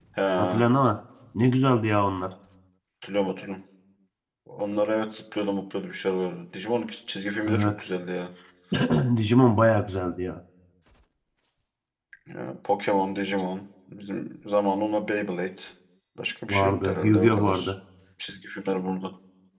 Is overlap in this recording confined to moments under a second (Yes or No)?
No